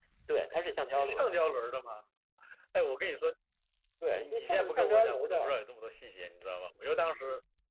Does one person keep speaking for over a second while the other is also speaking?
Yes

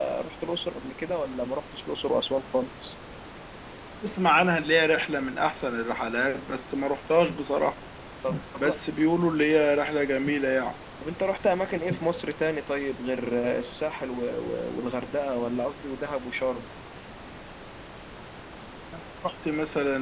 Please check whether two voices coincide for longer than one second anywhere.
No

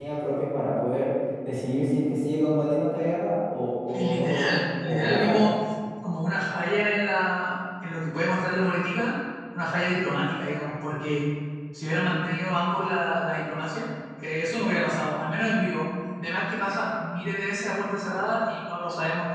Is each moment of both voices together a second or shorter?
No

